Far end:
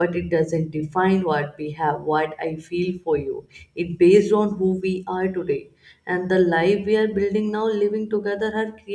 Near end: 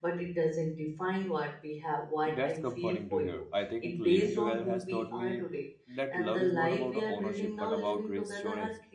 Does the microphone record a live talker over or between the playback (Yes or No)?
Yes